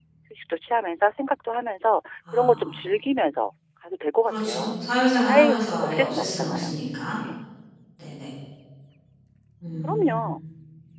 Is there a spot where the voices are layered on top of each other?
Yes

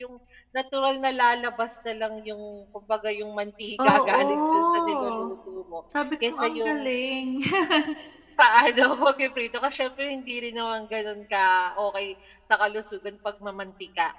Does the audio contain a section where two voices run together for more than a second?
Yes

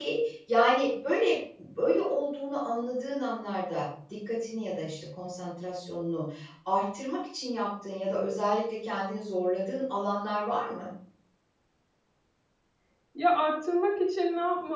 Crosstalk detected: No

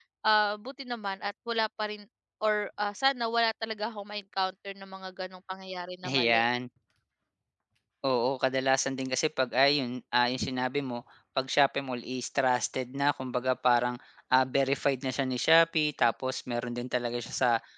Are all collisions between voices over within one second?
Yes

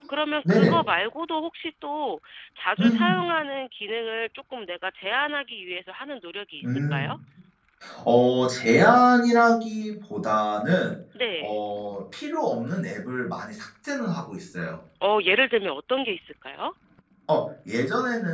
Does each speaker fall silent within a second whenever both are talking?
Yes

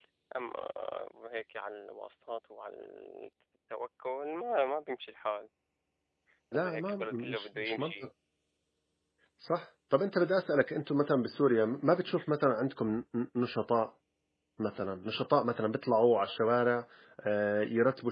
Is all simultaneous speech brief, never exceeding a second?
No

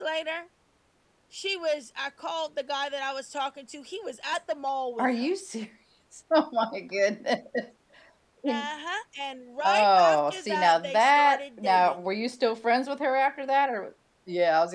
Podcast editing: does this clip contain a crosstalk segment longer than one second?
Yes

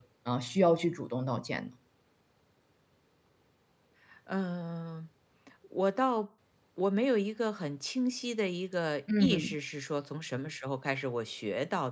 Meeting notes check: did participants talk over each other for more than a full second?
No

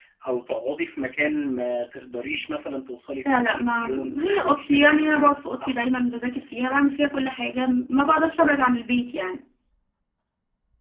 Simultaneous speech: Yes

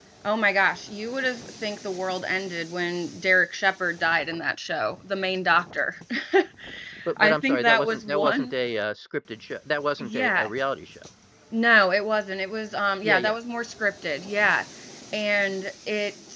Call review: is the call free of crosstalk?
No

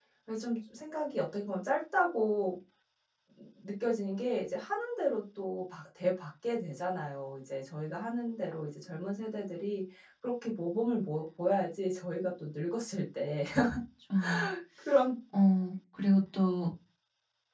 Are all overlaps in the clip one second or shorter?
Yes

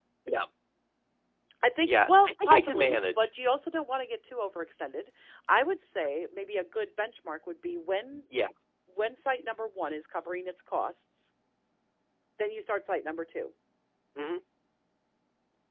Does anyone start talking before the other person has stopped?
Yes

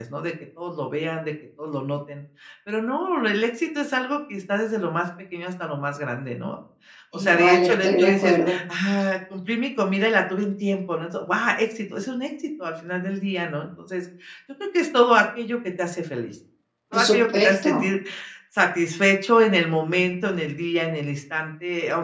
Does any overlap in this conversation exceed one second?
Yes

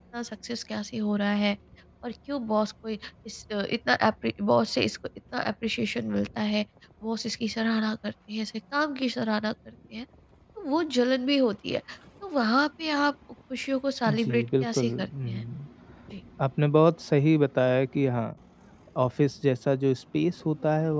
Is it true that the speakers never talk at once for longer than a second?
No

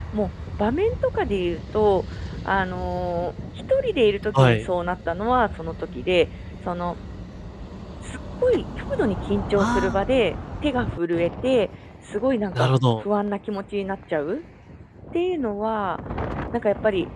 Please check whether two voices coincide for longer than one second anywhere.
No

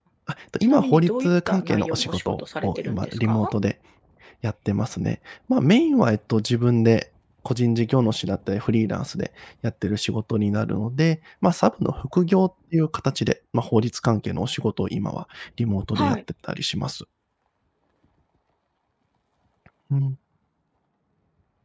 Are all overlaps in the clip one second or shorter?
No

